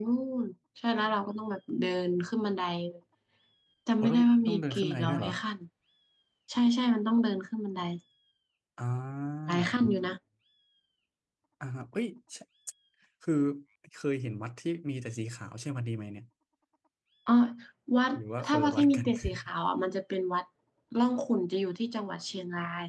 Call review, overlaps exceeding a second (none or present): present